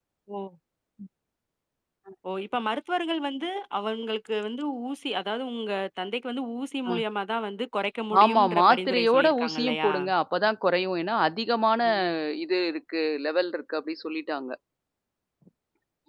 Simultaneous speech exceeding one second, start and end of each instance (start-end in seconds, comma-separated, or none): 8.2-9.9